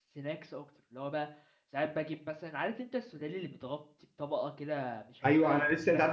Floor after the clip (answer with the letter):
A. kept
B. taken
B